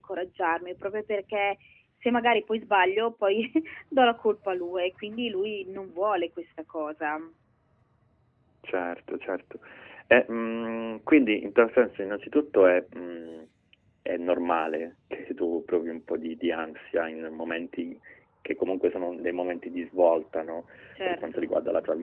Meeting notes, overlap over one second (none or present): none